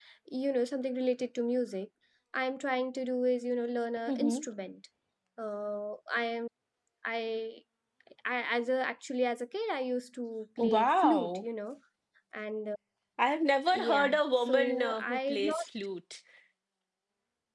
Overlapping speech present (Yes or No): Yes